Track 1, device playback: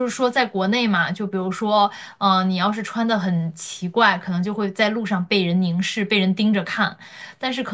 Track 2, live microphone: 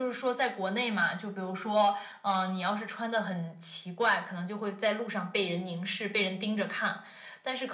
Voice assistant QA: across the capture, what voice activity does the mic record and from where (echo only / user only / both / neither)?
echo only